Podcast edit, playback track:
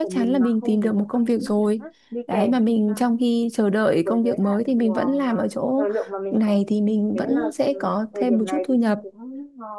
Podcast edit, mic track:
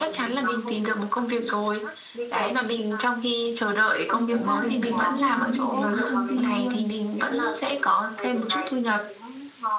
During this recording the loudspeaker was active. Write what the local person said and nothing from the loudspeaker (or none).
Xong mỗi ngày là em không muốn đi đến công ty luôn.